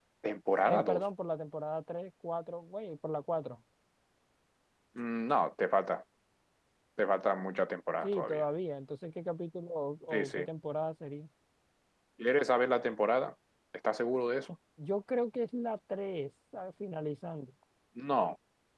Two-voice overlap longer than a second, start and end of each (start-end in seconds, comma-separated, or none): none